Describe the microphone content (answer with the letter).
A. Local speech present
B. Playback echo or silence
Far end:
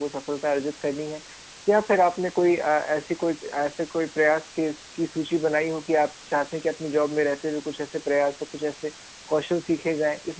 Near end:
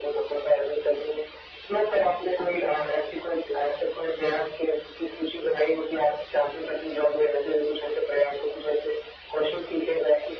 B